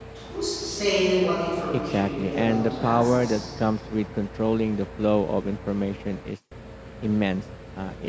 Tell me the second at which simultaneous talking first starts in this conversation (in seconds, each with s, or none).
1.7 s